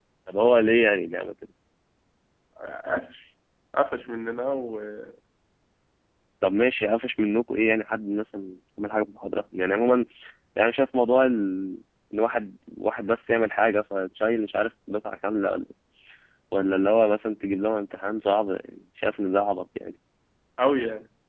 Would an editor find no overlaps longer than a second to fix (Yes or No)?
Yes